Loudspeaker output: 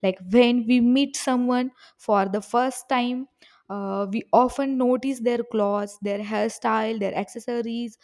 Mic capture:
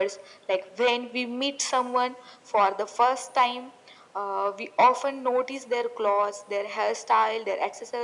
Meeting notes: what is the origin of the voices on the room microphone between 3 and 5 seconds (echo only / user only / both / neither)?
echo only